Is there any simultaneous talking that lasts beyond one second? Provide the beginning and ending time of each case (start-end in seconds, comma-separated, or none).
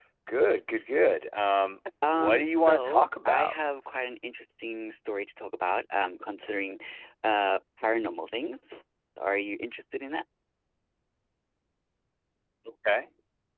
2.1-3.5